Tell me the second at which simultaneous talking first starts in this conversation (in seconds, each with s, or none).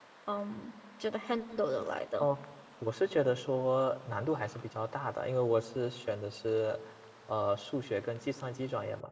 none